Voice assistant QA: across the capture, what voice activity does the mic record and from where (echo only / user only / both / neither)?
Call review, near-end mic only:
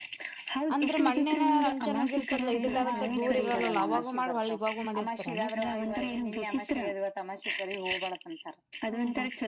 both